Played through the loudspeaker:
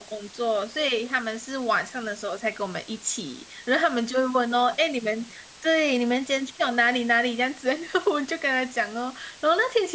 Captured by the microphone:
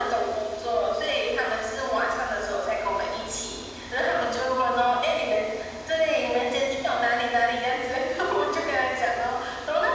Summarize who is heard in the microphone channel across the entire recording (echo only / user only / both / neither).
echo only